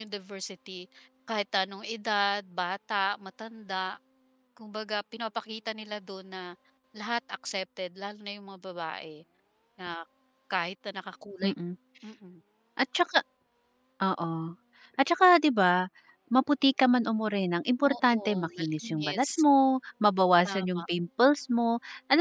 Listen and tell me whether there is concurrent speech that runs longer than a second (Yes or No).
Yes